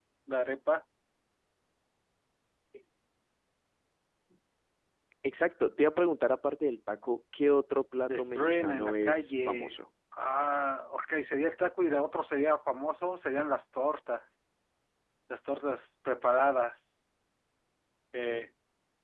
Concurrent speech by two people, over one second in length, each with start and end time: 8.2-9.8

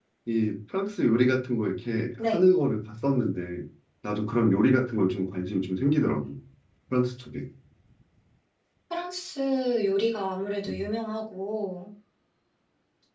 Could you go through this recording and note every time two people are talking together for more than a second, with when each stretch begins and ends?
none

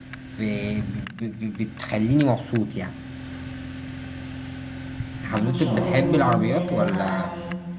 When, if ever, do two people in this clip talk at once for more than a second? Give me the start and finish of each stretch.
5.3-7.2

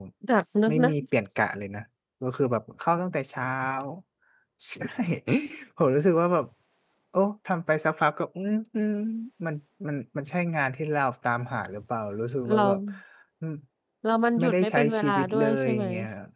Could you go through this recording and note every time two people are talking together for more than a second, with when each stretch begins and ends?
14.4-15.8

